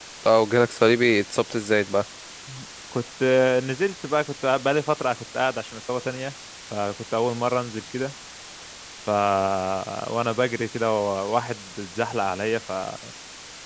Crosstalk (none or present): none